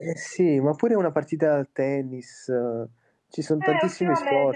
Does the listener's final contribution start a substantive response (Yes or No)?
Yes